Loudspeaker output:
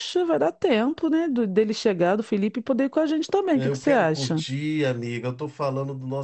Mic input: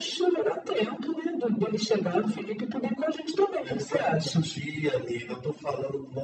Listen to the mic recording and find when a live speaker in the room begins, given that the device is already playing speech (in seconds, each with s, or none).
none